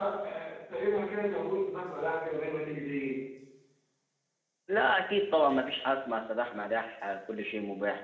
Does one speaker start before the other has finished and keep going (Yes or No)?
No